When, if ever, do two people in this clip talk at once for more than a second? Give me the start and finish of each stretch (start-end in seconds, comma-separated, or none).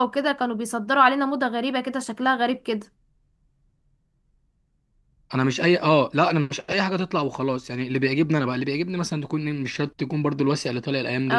none